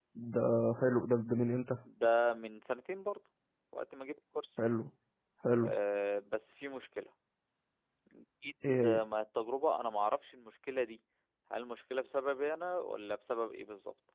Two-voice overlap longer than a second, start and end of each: none

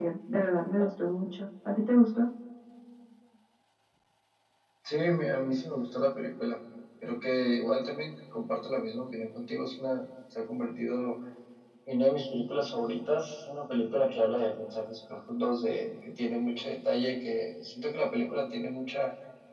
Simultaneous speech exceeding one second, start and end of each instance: none

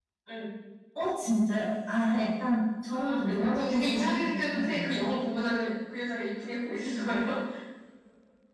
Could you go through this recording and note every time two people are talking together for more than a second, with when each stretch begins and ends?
2.9-5.1

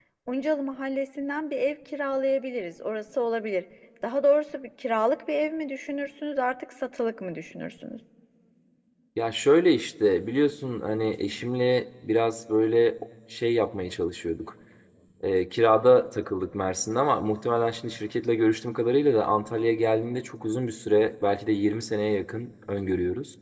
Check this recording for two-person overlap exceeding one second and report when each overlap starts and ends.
none

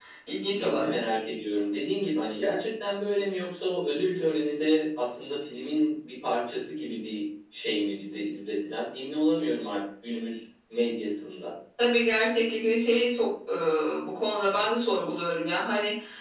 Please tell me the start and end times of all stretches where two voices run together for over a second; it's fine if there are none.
none

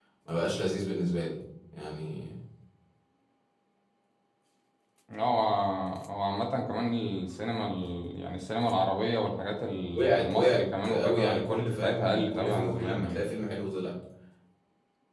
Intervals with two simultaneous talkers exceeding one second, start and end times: 9.9-13.2

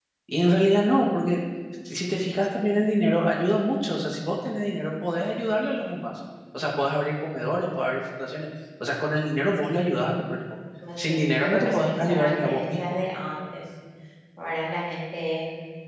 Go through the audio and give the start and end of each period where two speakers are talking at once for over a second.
11.0-12.8

